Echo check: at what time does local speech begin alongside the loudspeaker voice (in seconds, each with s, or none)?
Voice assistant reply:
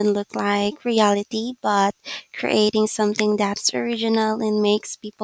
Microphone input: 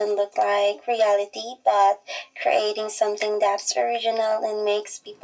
none